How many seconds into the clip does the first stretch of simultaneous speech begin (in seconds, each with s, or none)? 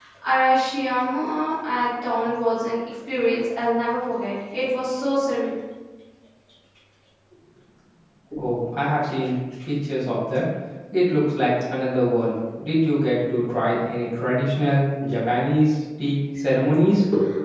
none